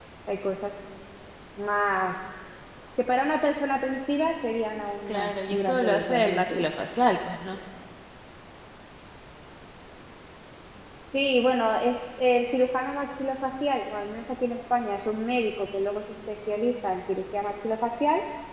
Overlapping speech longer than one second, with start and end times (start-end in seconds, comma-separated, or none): 5.1-6.7